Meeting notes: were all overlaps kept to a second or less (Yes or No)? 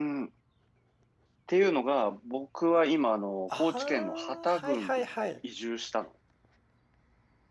No